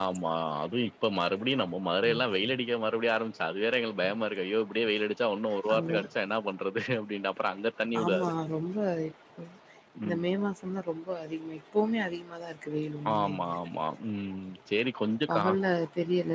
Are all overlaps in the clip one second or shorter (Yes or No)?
Yes